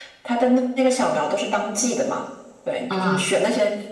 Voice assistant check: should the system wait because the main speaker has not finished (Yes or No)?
Yes